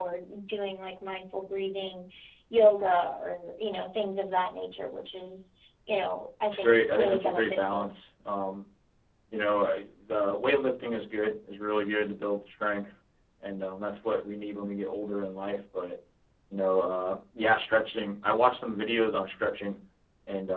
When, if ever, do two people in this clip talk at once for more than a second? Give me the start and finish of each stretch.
6.5-7.9

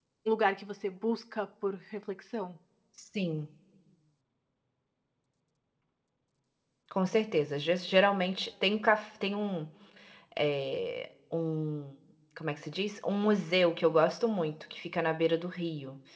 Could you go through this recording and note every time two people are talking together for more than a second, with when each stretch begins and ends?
none

